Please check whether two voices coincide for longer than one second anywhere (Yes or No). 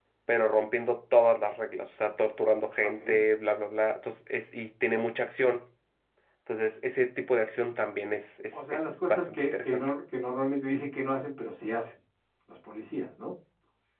Yes